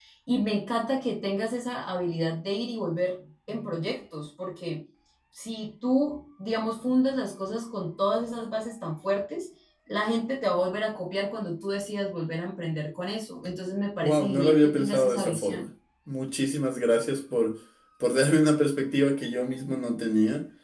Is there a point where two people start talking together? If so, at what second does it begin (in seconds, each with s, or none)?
14.0 s